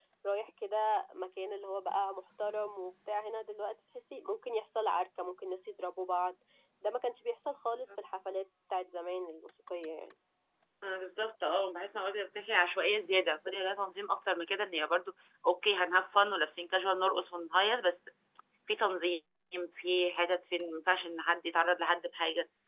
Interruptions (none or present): none